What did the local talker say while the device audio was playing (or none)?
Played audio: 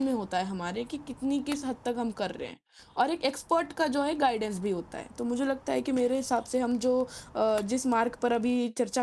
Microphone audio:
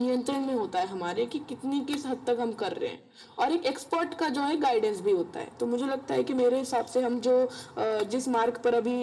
none